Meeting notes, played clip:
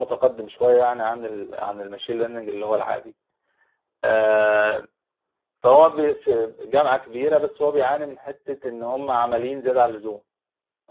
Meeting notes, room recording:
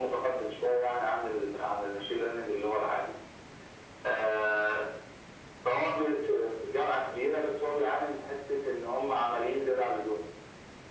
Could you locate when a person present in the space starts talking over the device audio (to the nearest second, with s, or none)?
none